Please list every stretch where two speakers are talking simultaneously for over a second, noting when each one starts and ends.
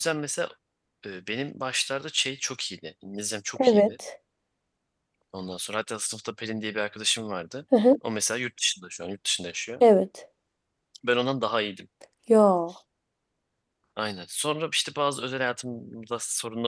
none

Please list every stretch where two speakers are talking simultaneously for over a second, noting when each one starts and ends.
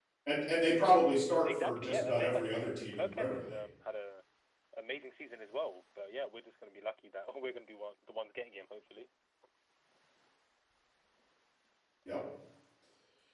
1.4-3.6

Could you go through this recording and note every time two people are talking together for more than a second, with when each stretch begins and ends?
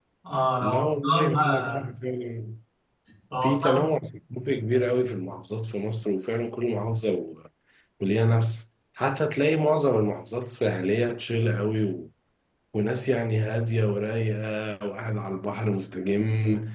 0.6-1.9

